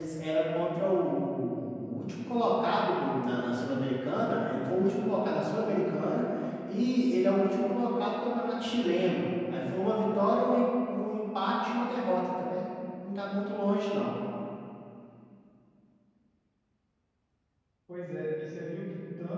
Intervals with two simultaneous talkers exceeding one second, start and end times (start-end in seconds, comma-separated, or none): none